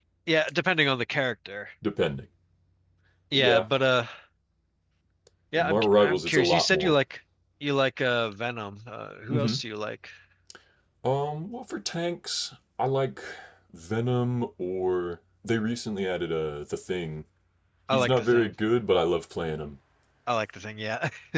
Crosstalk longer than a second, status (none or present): present